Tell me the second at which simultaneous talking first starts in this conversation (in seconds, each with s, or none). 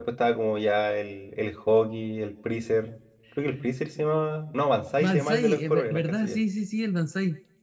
5.0 s